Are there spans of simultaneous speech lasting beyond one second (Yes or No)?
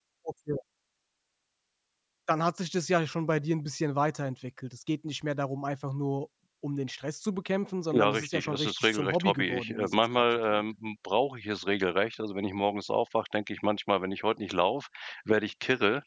Yes